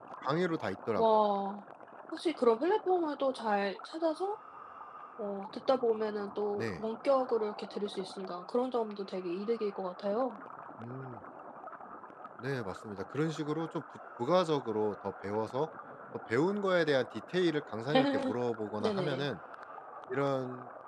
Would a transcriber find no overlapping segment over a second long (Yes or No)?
Yes